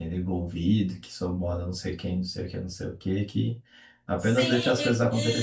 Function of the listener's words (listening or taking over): taking over